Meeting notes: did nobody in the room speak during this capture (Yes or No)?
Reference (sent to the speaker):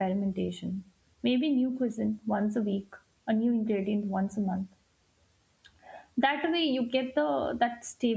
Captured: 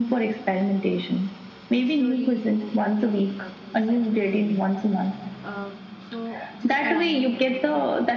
No